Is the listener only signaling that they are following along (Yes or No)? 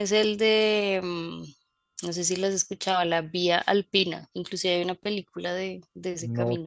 No